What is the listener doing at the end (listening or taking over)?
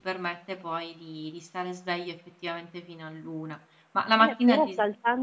taking over